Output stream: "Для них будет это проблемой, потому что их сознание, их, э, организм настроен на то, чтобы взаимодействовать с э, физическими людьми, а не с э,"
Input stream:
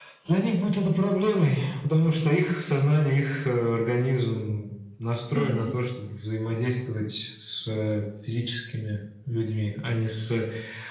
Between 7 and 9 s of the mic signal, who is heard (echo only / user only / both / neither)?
echo only